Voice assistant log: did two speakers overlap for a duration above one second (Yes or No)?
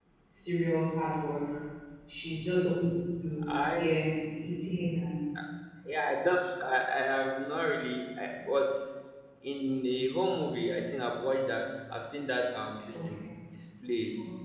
No